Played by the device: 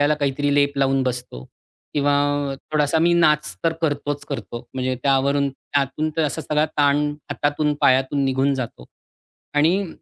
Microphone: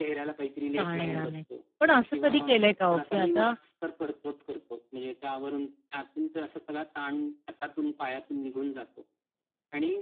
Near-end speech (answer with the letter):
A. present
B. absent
A